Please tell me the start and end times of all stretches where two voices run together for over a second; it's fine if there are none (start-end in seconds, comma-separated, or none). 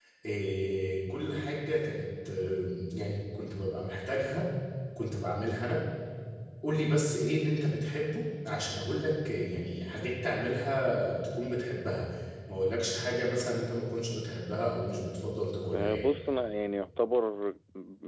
none